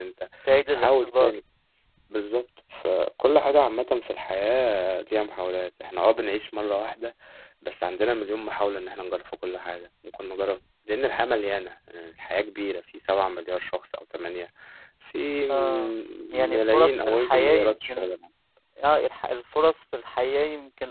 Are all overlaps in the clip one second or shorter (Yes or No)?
No